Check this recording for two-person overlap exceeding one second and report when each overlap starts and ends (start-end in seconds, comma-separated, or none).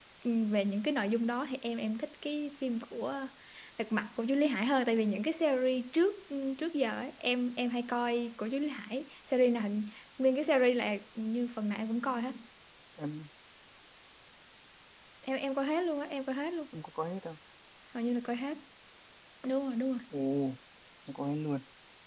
none